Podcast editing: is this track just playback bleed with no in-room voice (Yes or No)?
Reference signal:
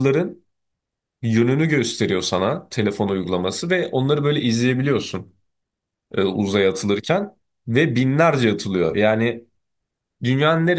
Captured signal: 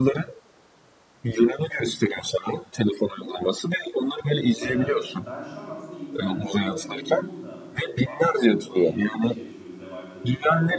No